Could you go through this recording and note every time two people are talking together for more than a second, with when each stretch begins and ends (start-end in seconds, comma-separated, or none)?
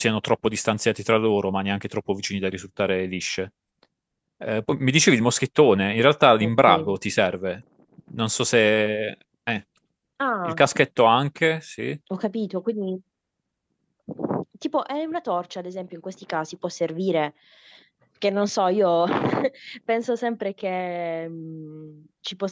none